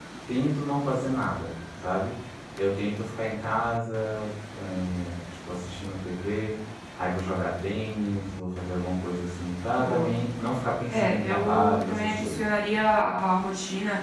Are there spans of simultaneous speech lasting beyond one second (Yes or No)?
Yes